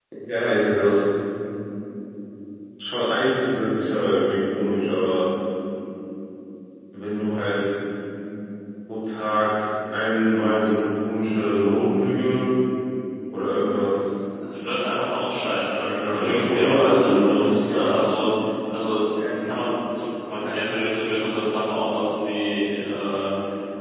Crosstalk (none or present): present